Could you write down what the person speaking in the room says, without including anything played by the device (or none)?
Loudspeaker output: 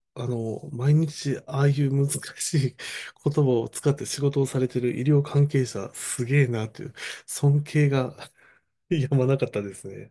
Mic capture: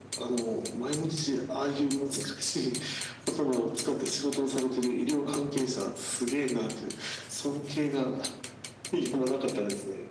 none